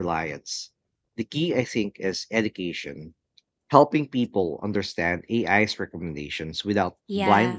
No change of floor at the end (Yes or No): No